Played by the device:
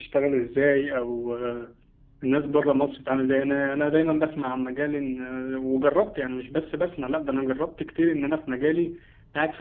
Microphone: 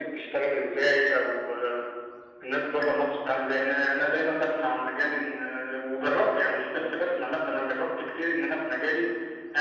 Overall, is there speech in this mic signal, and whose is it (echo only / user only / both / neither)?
echo only